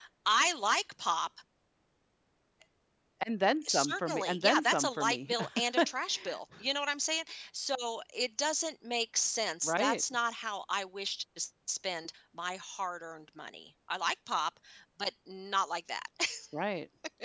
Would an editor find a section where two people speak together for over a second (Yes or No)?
Yes